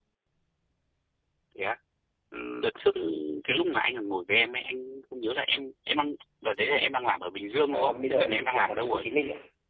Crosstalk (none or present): present